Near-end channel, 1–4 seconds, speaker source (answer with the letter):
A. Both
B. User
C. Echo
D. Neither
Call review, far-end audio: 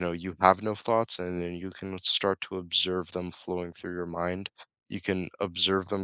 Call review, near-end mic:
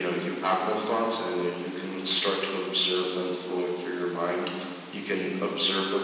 C